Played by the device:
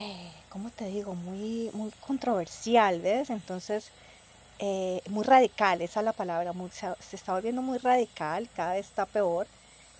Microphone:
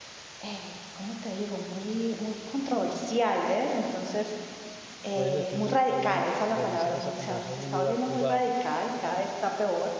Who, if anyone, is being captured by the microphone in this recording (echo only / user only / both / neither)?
both